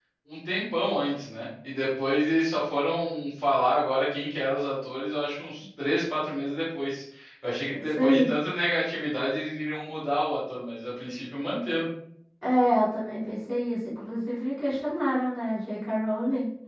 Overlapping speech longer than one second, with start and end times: none

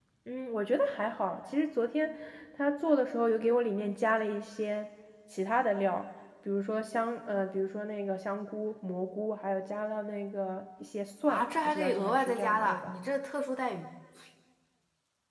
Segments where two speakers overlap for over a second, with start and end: 11.3-12.9

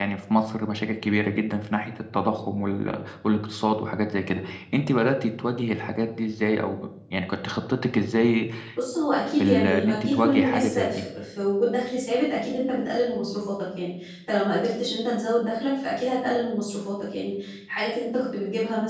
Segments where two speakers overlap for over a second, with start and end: 9.4-11.0

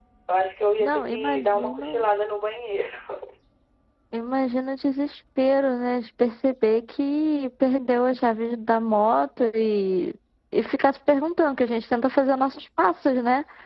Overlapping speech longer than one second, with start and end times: 0.8-2.0

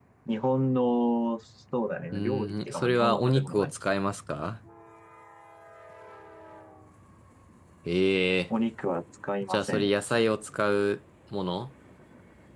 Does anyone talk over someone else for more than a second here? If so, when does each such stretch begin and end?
2.1-3.7

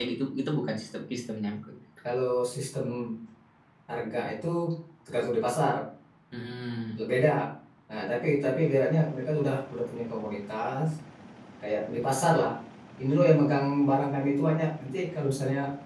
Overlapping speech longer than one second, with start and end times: none

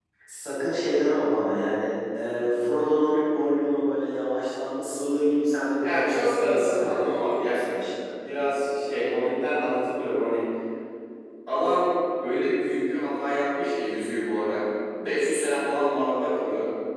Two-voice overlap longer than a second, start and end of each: 5.8-7.6

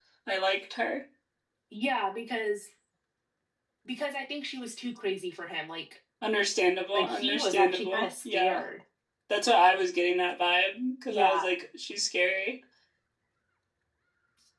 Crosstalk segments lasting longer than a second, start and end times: 6.9-8.6

